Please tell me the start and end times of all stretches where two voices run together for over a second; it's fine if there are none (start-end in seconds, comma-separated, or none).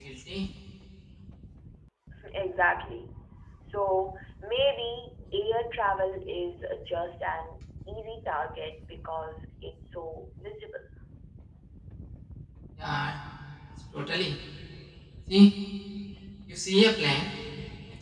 none